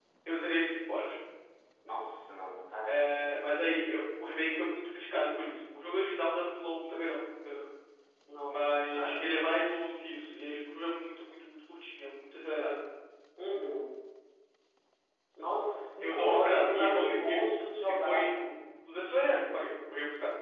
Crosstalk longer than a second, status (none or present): present